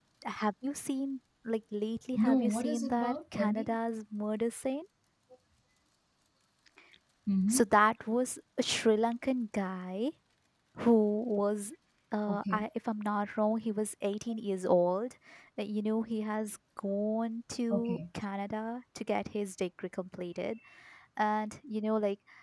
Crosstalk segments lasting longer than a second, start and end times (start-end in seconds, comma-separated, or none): 2.3-3.7